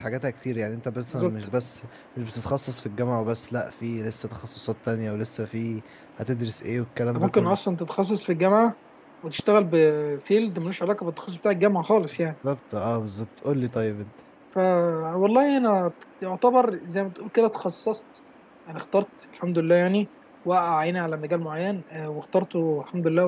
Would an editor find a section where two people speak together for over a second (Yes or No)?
No